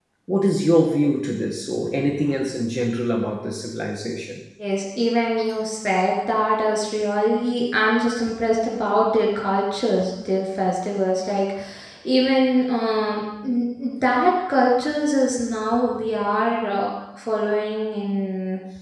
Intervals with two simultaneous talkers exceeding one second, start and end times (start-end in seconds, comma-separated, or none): none